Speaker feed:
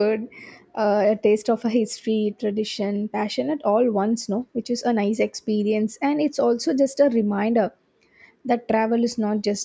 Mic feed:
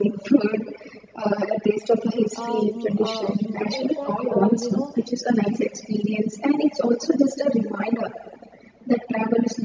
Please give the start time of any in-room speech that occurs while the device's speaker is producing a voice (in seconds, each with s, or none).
2.3 s